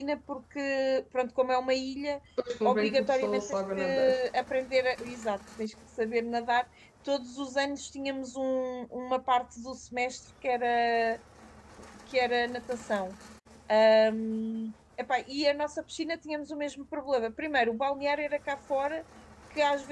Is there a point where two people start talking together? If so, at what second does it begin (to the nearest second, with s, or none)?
3 s